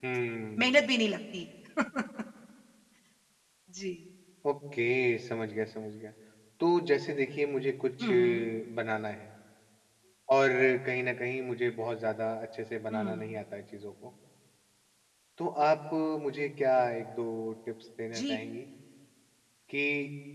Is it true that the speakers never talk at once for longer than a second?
Yes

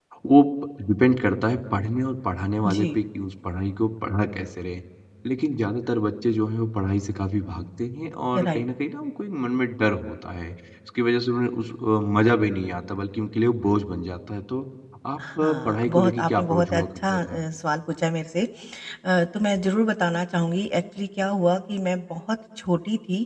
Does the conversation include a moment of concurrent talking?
Yes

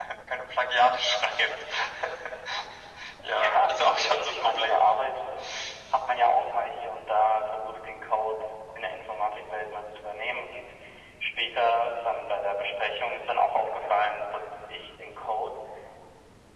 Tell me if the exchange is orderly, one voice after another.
No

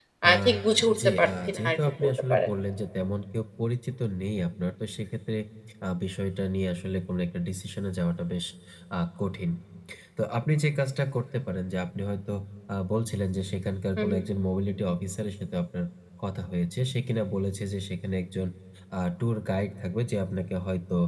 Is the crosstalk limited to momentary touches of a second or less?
No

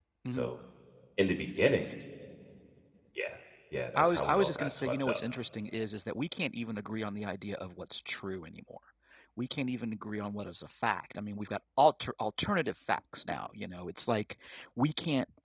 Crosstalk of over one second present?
Yes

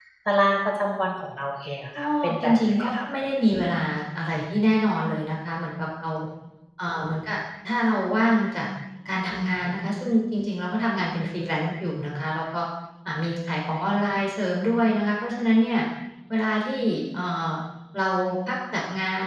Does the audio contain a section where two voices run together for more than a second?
Yes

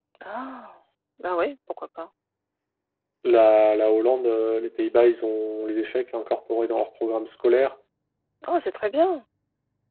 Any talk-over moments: No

